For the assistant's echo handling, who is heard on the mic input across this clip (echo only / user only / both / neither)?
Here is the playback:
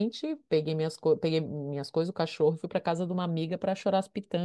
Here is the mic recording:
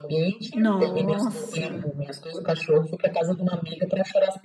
both